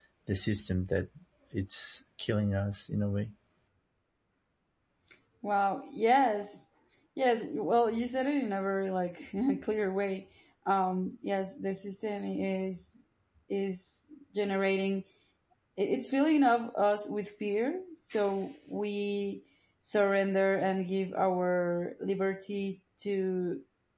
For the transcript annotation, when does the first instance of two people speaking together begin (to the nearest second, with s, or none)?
none